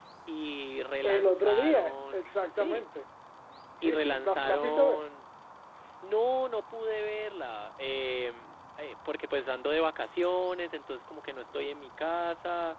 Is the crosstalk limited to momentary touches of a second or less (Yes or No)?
No